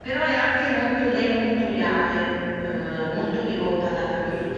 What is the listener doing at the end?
taking over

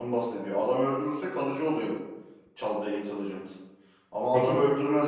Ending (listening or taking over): listening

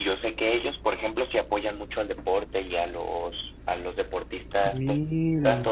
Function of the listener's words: listening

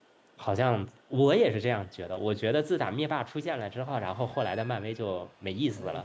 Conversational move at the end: taking over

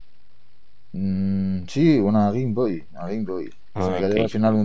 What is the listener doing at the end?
listening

